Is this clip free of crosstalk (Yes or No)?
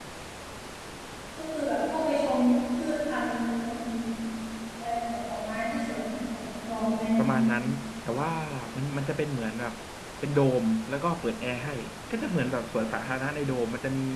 Yes